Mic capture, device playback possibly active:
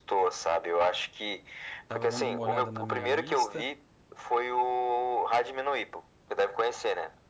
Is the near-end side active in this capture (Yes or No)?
Yes